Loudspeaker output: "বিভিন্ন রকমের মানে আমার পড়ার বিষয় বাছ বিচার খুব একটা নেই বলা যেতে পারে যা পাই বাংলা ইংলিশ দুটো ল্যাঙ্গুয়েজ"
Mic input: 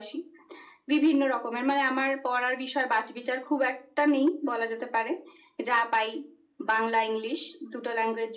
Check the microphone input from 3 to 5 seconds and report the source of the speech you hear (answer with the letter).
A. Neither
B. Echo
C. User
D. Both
B